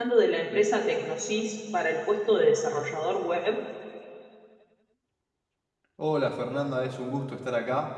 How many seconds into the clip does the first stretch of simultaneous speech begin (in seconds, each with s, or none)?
none